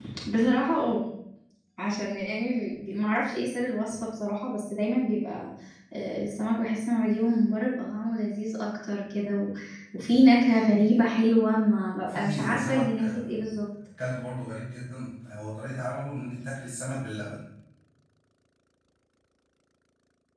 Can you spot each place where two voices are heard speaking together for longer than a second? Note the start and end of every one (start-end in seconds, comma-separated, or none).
12.1-13.6